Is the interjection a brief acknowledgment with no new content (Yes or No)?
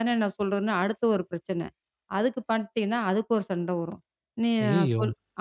Yes